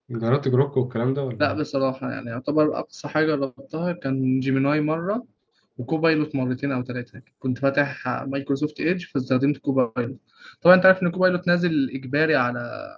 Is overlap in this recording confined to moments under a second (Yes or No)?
Yes